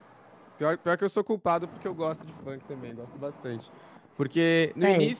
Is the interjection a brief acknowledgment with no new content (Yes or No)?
Yes